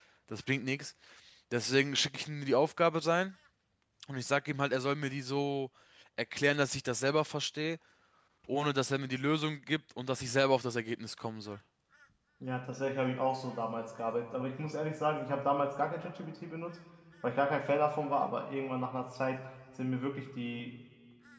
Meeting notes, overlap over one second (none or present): none